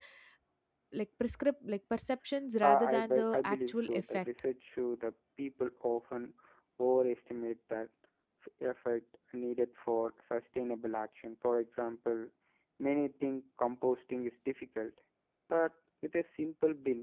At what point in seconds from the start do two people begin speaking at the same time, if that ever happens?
2.6 s

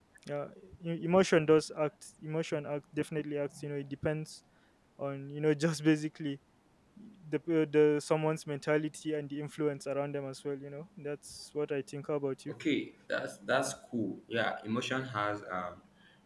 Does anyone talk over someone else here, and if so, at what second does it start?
none

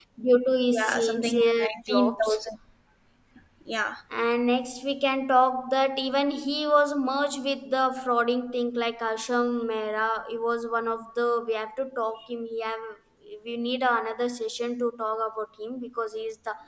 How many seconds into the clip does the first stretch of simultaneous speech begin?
0.7 s

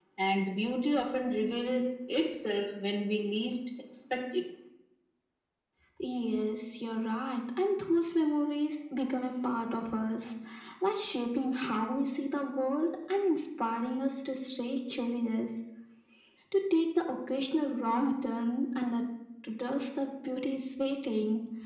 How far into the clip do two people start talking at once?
none

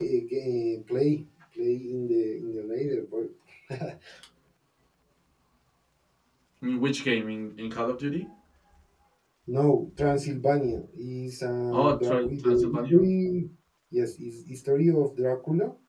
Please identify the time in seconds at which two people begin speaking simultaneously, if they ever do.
11.7 s

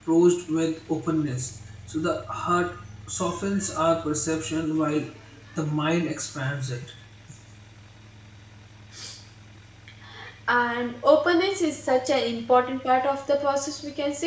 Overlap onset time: none

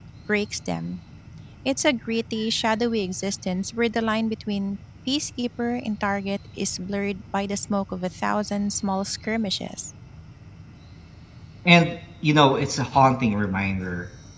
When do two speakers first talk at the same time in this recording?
none

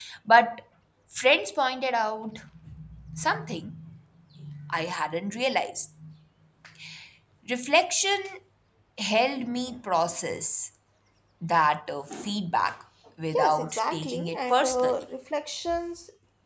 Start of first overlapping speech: 13.3 s

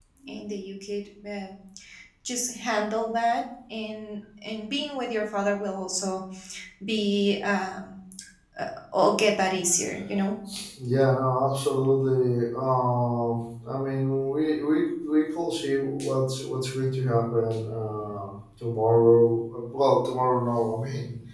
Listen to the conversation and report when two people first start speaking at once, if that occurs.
none

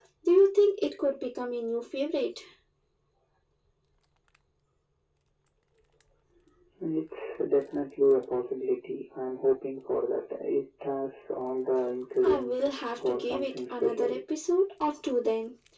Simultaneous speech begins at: 12.2 s

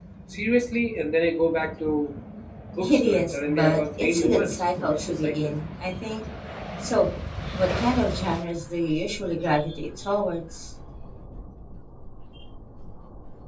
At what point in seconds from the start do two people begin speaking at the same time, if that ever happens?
2.8 s

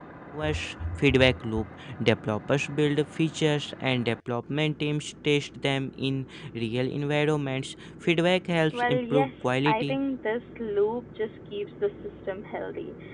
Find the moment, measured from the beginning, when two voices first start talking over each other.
8.7 s

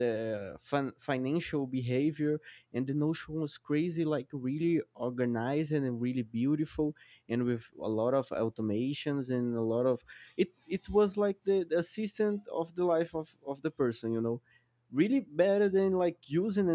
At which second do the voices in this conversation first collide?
none

